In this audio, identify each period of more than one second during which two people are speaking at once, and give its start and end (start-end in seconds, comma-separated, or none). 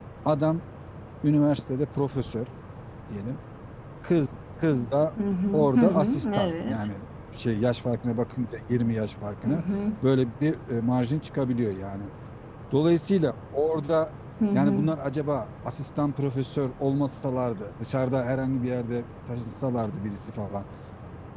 5.5-6.9